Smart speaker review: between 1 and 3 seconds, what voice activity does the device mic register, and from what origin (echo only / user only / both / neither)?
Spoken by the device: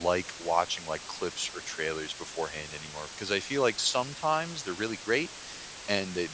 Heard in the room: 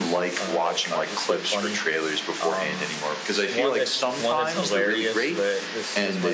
both